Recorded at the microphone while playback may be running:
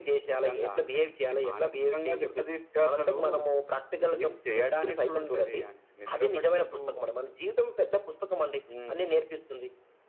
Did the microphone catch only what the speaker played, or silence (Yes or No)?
Yes